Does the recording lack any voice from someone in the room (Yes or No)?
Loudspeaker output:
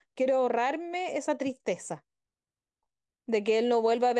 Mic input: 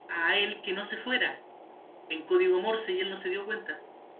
No